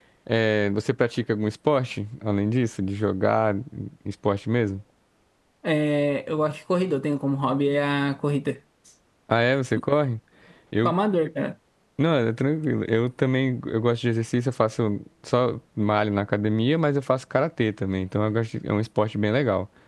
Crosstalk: none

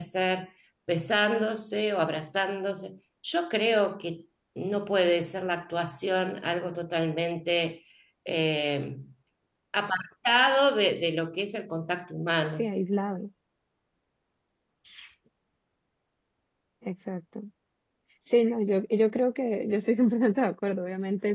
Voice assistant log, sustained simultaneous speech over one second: none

